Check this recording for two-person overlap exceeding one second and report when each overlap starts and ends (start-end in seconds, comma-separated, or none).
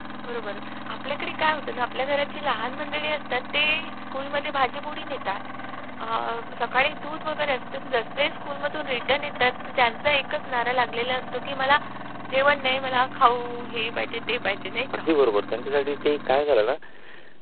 none